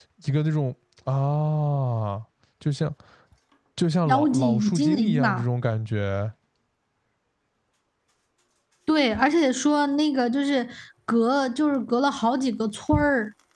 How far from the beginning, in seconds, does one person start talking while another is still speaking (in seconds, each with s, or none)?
4.0 s